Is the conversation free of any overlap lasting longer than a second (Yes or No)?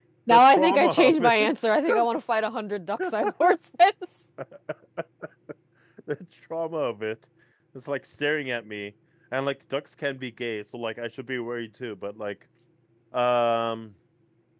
No